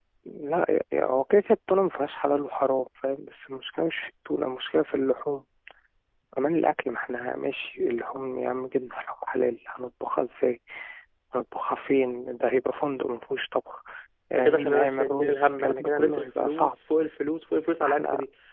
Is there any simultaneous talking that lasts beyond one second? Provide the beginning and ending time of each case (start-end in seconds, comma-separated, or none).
14.3-16.7